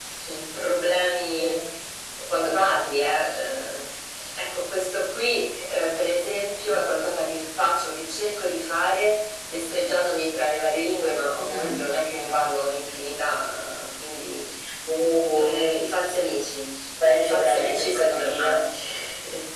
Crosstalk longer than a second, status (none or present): present